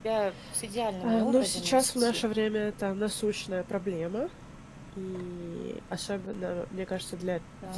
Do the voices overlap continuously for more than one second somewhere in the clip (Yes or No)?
Yes